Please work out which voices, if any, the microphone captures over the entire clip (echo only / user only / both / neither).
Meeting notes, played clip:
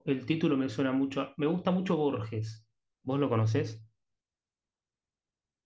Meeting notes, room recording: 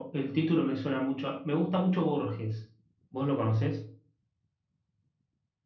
echo only